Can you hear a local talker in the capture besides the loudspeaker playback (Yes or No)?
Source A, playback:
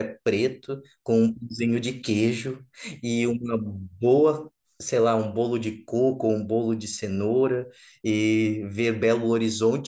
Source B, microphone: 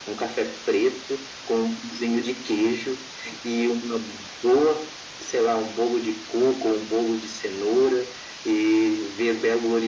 No